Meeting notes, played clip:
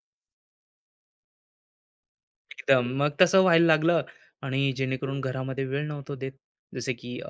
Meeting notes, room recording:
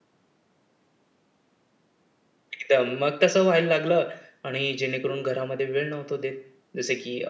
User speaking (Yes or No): No